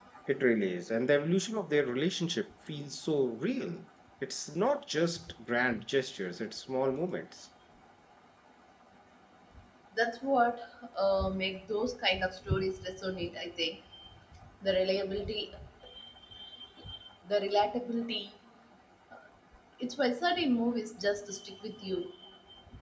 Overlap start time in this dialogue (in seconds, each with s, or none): none